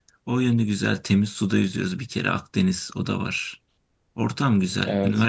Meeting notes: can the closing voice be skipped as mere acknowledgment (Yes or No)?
Yes